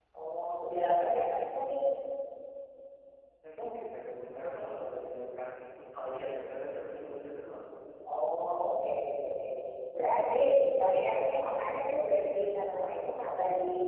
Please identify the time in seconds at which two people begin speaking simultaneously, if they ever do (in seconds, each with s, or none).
none